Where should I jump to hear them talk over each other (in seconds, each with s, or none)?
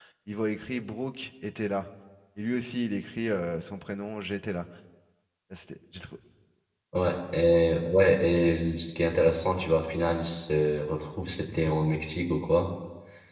none